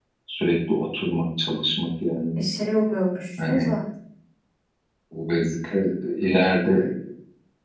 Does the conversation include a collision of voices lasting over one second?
No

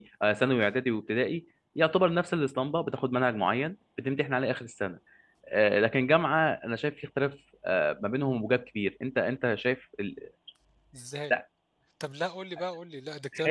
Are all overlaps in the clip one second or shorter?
Yes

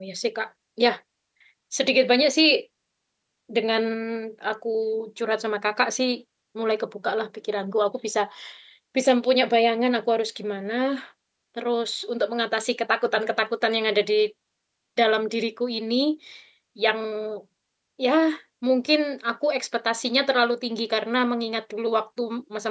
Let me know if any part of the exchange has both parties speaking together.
No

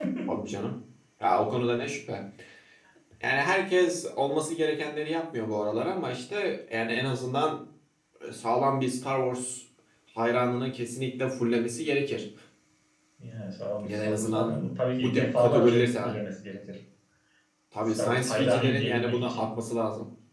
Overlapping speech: Yes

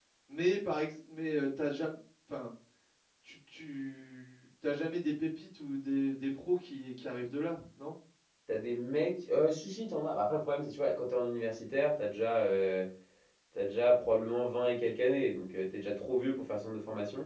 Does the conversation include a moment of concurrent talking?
No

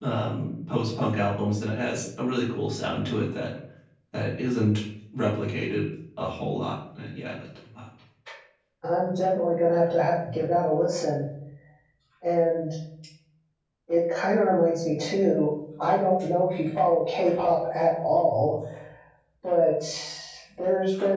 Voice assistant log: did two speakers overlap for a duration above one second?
No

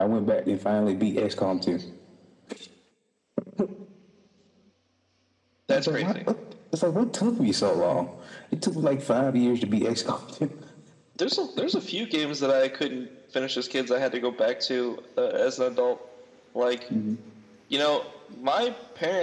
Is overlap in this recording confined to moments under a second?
Yes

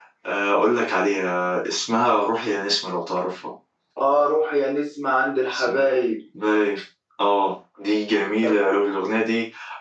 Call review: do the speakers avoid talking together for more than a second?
Yes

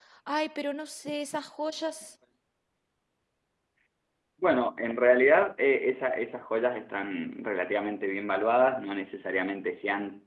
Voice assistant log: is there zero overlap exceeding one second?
Yes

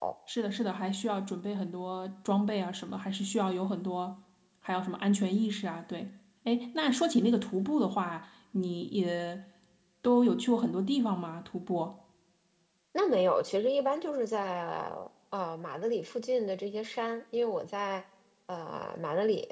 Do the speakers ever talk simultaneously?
No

